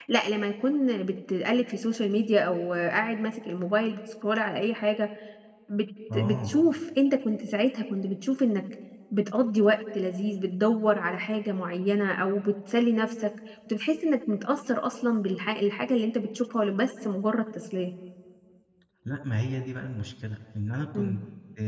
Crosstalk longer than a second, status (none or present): none